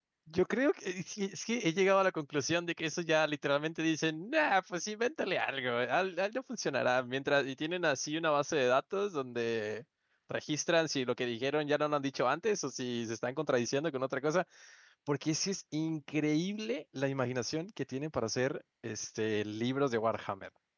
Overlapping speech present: No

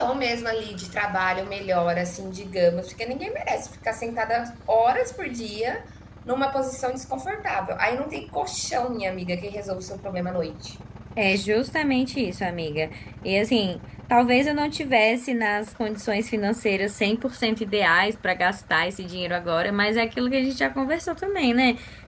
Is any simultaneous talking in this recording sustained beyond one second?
No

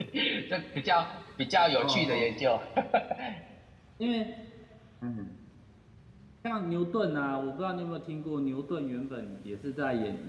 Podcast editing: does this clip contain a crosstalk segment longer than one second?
No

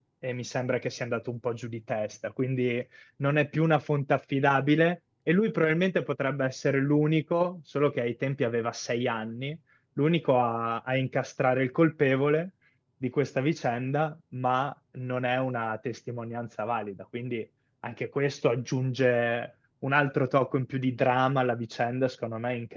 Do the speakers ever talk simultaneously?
No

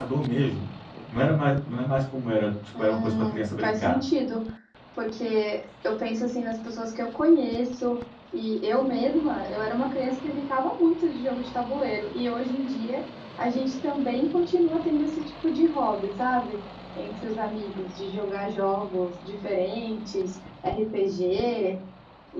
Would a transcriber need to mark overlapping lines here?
Yes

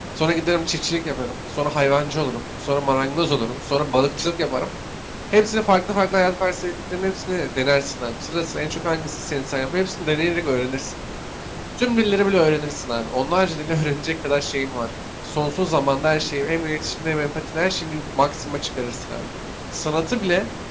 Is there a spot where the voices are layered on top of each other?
No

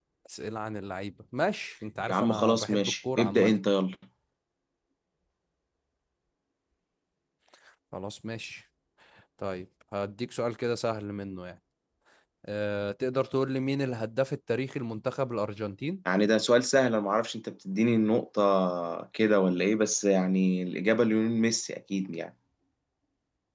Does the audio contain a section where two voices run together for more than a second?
Yes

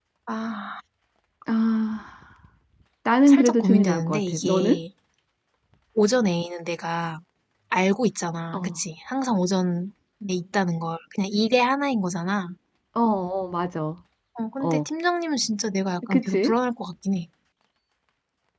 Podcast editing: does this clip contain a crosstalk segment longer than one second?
Yes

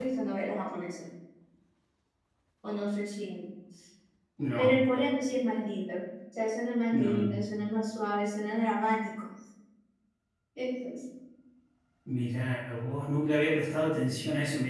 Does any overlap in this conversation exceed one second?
No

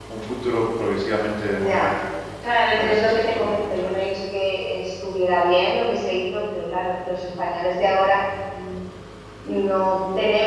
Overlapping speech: Yes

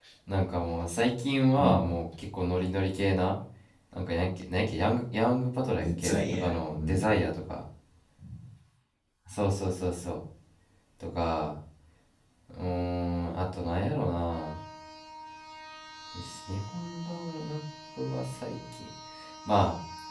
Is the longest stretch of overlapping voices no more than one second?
No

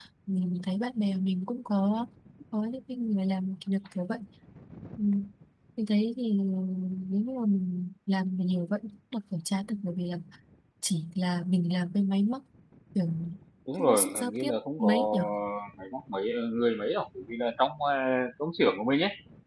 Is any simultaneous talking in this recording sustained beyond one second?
Yes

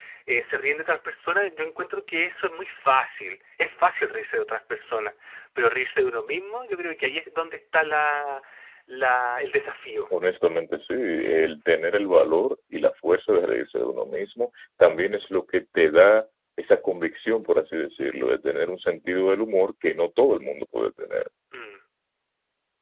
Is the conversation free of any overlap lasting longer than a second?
Yes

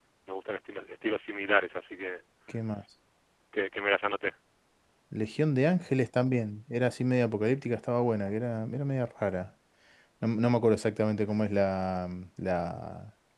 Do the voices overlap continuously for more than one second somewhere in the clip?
No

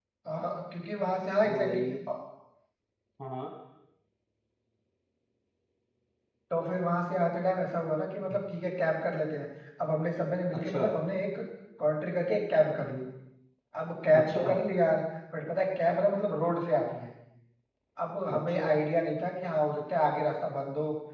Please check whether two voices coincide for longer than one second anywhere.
No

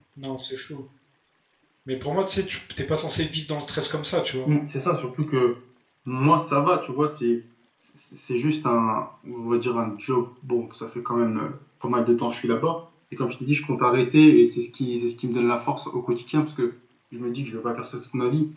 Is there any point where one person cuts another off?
No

